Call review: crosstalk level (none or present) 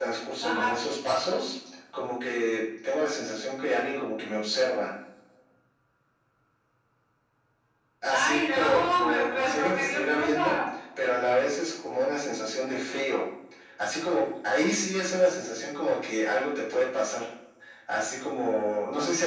present